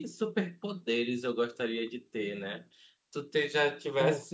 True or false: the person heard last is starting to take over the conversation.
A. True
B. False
B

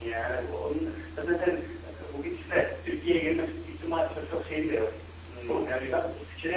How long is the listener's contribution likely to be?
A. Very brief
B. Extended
A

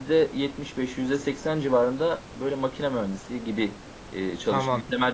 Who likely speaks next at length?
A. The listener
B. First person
A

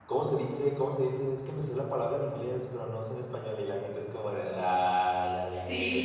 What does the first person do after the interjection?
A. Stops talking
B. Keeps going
B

